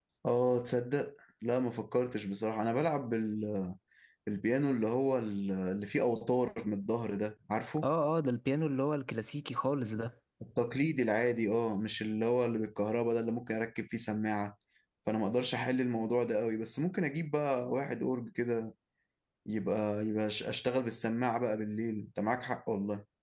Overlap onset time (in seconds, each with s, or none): none